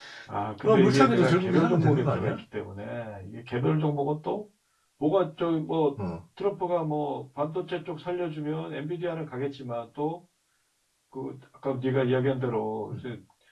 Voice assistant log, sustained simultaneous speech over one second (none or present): present